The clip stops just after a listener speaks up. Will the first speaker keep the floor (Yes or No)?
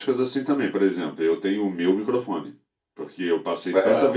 Yes